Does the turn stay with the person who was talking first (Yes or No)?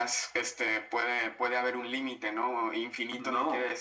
Yes